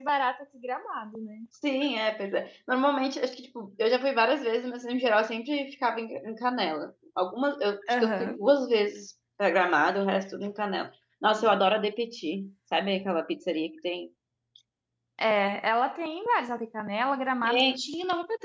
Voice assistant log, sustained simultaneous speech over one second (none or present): none